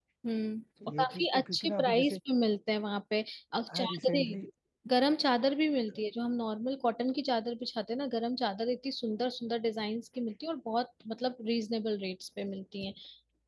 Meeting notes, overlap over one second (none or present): present